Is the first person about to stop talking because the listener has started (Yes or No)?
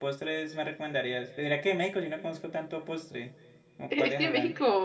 Yes